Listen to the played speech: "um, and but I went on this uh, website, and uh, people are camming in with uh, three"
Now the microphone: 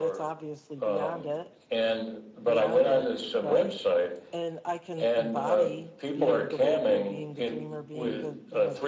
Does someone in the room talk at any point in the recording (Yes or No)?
Yes